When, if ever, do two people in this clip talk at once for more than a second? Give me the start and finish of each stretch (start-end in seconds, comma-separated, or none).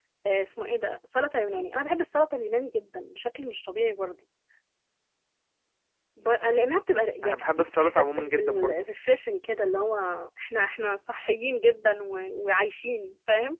7.2-8.8